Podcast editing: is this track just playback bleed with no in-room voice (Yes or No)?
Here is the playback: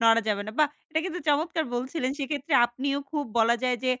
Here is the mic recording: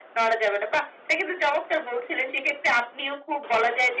Yes